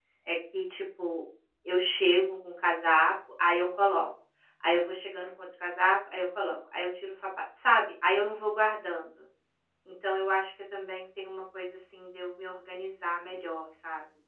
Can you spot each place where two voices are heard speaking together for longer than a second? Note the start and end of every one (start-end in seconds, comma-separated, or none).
none